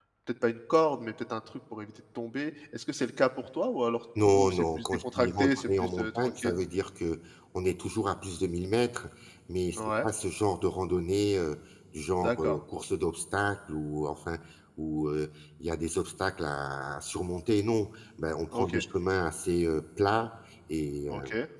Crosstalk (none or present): present